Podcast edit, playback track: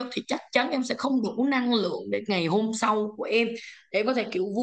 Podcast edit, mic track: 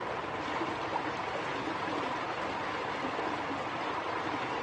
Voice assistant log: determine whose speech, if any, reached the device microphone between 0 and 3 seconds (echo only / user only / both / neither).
neither